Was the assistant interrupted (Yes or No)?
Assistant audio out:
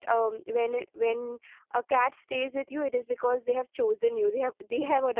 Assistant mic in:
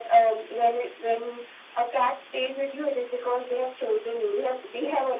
No